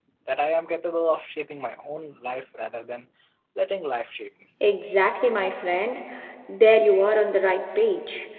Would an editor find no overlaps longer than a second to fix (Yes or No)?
Yes